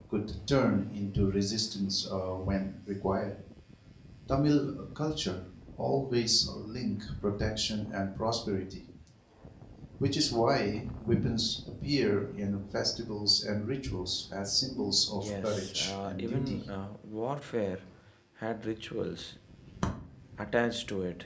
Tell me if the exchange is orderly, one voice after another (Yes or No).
No